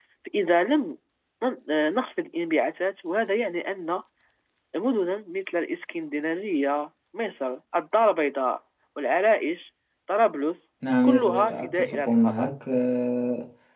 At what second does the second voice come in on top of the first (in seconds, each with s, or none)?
10.8 s